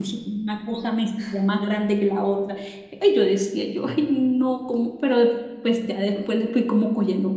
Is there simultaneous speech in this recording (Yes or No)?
No